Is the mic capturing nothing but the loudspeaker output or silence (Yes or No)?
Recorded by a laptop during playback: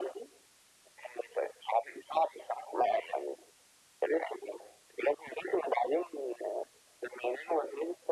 Yes